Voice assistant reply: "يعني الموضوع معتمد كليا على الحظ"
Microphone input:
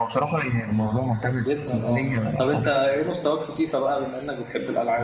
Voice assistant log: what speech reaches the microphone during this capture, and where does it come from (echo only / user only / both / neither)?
both